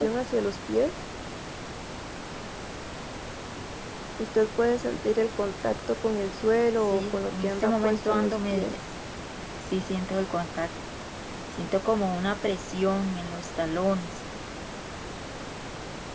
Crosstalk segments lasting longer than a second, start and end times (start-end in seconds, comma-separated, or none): 6.9-8.7